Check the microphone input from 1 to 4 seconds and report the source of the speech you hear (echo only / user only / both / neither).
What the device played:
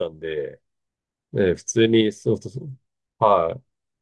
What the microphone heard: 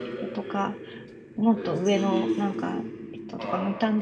both